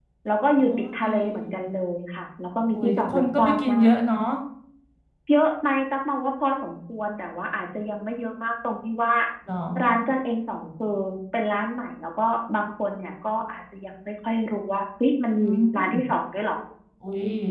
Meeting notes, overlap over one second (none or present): present